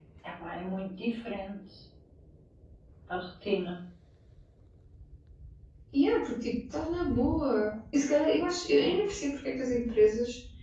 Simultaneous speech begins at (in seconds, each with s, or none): none